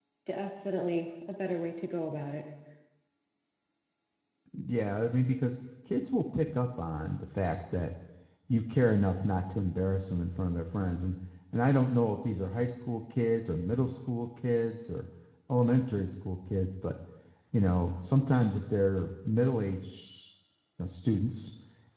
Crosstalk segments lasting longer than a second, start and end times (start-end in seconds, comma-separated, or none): none